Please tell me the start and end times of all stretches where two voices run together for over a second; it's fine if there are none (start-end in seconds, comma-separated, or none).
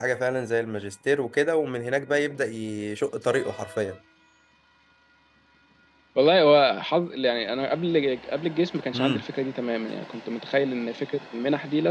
none